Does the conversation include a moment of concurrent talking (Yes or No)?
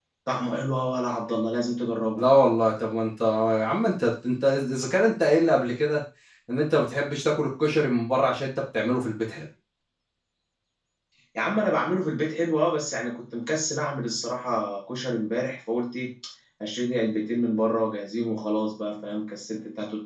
No